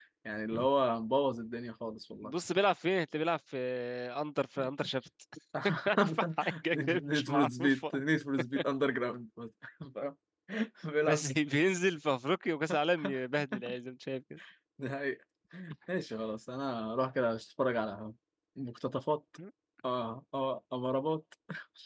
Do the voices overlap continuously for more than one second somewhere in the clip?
Yes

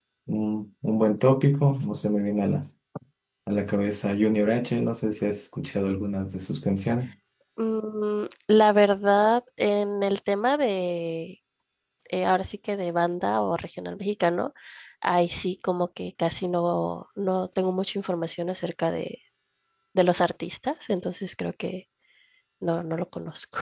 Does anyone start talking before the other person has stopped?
No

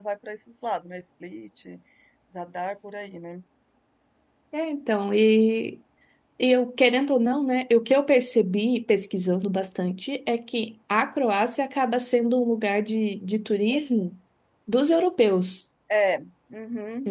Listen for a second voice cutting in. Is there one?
No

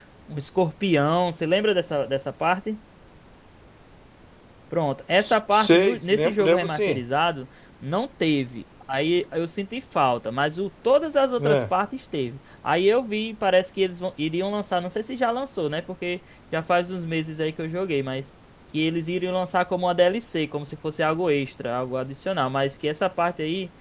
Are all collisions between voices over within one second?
No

